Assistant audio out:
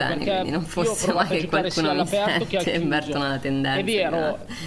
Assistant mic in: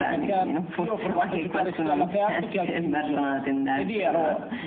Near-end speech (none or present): none